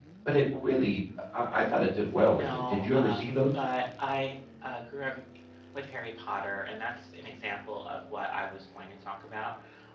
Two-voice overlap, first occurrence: 2 s

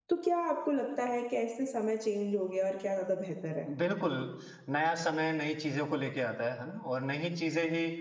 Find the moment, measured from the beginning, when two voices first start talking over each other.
none

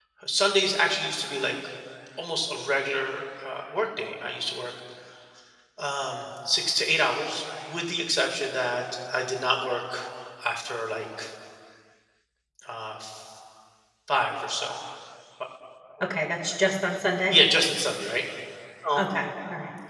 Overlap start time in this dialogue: none

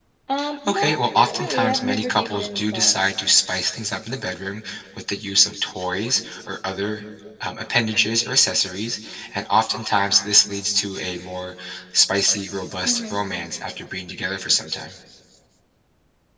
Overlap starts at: 1 s

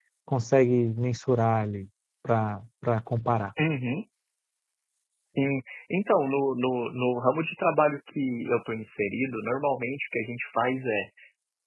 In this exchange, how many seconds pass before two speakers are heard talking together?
none

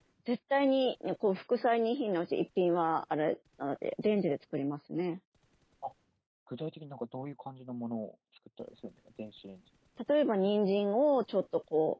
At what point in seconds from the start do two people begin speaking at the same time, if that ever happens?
none

